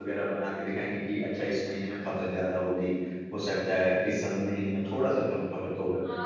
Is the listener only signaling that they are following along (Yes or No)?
No